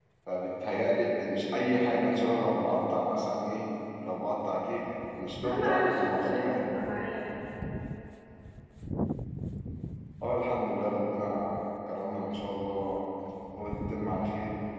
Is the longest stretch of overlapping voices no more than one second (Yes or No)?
No